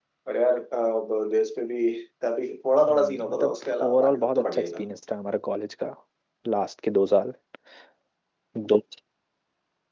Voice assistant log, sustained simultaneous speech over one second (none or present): present